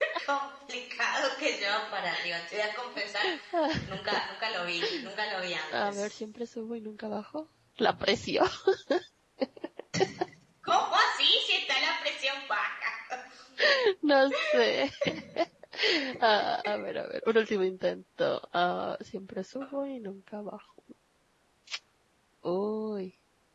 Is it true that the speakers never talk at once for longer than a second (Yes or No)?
Yes